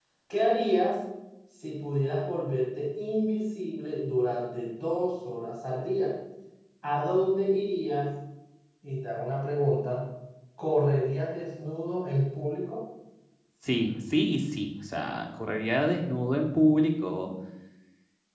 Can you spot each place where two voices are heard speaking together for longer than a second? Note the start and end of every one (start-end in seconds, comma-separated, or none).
none